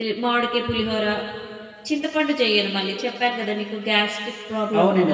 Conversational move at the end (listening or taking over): taking over